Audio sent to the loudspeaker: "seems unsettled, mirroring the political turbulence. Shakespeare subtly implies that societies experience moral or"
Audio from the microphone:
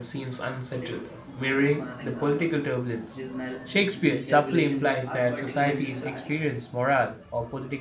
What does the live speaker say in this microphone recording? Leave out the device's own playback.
Take Brutus for an example. I mean, his mal- miscalculation are particularly tragic.

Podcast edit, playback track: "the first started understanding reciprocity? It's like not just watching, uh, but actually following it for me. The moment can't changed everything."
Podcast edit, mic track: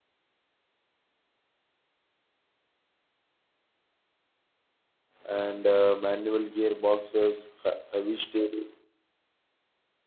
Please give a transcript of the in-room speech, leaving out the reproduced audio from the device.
and uh, manual gearboxes, he- heavy steering.

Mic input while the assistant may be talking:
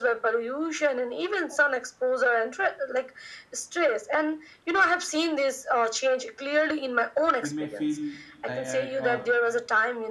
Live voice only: we may feel tired or

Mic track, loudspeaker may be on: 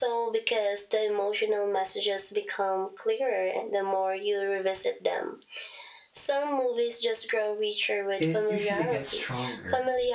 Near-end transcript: it usually gets stronger,

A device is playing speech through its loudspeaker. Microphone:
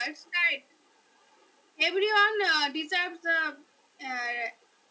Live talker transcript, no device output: none

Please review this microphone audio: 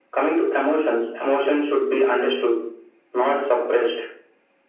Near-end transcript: none

